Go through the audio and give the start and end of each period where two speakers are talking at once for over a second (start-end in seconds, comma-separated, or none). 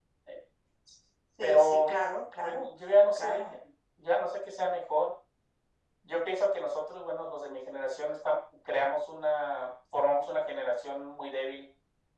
none